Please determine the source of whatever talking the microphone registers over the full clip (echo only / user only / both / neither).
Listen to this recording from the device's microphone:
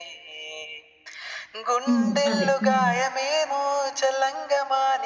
both